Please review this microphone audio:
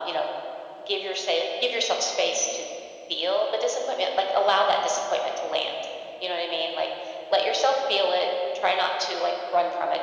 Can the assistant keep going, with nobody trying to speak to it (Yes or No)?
Yes